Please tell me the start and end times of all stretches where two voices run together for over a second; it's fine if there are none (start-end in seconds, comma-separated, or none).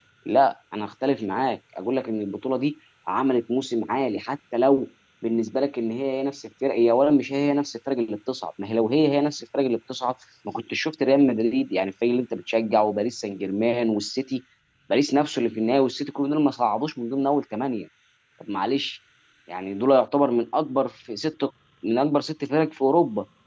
none